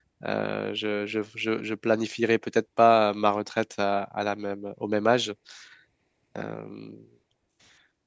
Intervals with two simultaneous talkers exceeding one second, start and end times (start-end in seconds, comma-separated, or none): none